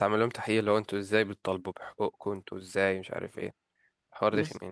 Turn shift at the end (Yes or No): Yes